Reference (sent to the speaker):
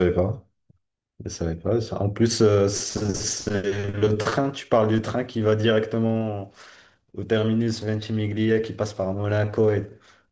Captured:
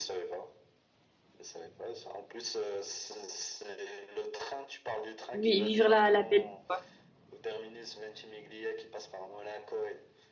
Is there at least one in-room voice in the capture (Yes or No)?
Yes